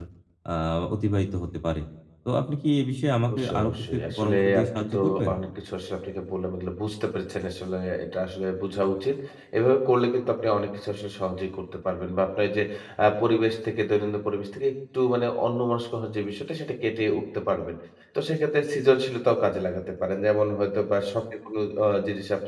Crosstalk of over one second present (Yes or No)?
Yes